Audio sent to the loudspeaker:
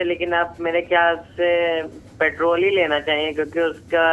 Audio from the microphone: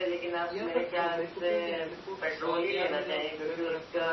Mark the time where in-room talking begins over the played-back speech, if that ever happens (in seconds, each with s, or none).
0.5 s